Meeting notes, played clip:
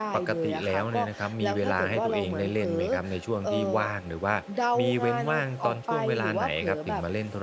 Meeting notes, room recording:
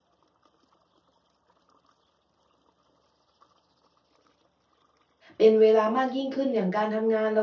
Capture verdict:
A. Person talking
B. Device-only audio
A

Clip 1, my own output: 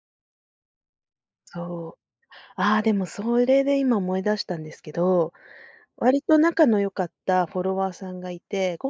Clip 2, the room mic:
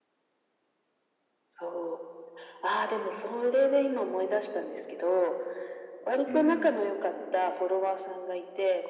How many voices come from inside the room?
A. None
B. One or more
B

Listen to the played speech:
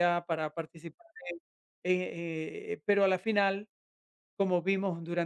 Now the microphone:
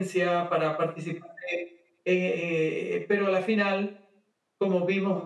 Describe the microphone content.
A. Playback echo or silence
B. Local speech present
A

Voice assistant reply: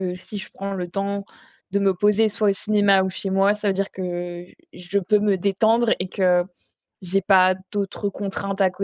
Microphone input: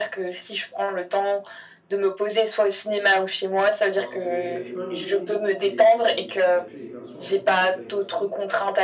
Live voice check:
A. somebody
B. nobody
A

